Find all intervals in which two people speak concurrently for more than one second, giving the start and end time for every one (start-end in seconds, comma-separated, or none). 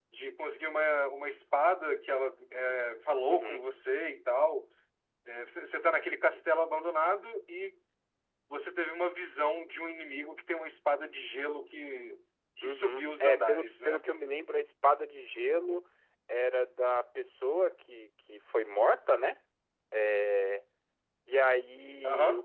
12.6-14.1